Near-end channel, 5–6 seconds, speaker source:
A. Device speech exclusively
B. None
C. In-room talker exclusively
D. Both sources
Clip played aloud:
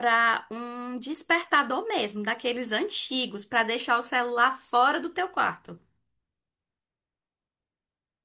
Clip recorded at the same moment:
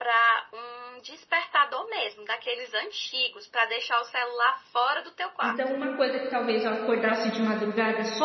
D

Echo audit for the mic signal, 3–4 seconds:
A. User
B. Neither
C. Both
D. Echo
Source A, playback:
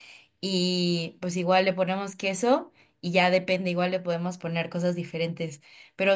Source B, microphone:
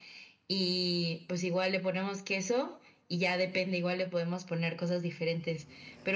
D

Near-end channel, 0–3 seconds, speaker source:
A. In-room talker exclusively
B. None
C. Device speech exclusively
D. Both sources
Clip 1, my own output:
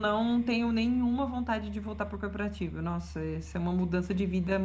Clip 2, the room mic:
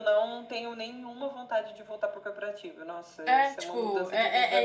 C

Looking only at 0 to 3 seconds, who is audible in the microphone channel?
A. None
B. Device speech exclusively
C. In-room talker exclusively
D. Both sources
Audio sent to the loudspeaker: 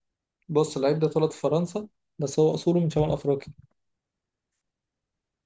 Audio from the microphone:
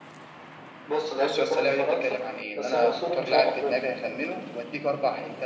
D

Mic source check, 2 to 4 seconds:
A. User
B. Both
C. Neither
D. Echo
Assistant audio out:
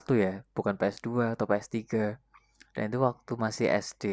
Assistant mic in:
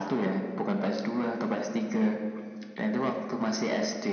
D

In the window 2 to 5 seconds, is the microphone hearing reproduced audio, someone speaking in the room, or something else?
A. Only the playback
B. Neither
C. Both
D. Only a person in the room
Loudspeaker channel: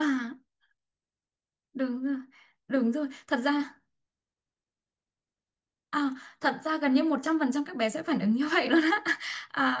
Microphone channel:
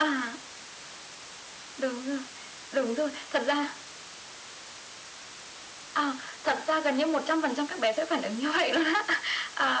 A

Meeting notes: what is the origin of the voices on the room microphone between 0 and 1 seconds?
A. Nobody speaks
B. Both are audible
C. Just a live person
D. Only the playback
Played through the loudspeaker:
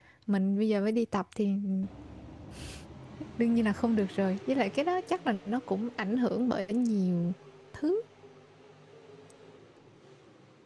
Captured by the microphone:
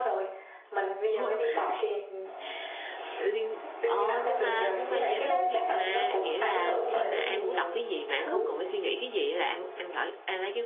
D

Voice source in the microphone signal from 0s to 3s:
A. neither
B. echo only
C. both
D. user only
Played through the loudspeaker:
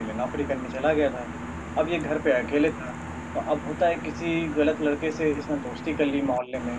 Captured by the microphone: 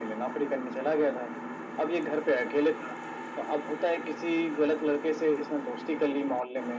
B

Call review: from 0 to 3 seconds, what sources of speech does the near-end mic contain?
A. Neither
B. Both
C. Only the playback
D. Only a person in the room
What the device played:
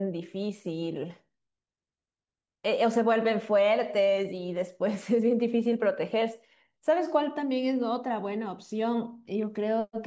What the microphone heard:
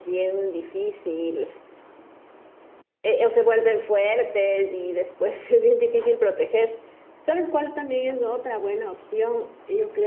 C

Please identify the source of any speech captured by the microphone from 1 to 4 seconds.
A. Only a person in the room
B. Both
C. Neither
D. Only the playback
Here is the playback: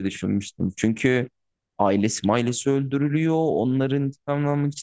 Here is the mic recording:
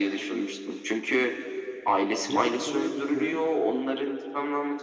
B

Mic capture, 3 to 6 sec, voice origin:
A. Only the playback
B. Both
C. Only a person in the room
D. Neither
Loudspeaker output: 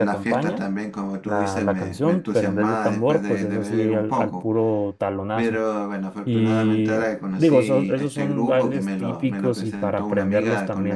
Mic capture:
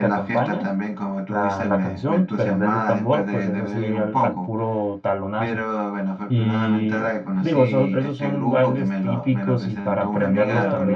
A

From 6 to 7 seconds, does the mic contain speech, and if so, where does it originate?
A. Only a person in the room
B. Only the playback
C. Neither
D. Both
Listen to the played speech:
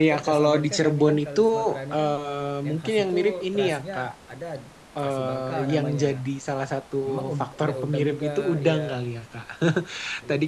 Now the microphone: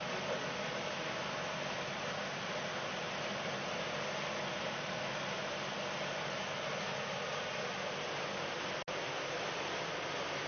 C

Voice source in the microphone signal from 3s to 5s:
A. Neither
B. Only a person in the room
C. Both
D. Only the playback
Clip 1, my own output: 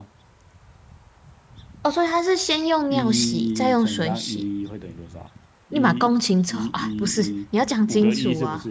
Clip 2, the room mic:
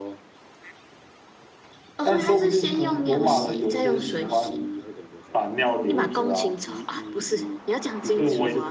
C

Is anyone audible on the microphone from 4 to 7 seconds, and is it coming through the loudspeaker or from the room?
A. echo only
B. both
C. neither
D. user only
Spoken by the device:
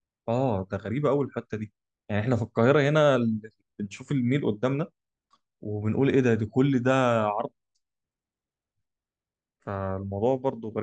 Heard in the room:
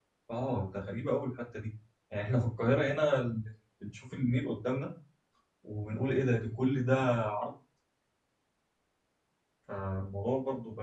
A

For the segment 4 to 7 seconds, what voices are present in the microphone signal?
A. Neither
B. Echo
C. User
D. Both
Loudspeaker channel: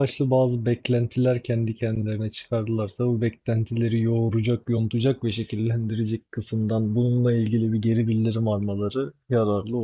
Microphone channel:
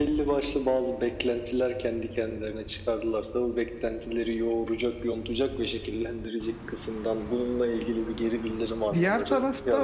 B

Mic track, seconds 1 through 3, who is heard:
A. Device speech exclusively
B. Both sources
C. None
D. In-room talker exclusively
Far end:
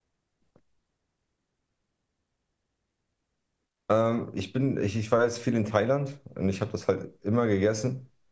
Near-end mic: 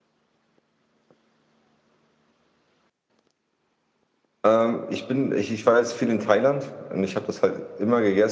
C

